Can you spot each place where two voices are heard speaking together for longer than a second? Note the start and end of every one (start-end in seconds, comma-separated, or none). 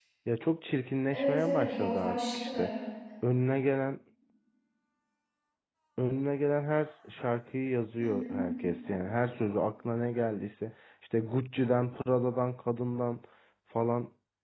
1.1-2.7